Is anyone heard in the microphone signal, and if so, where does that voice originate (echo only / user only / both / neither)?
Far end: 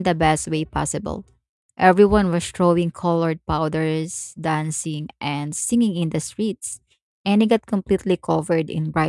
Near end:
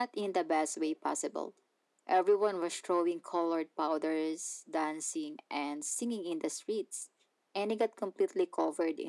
echo only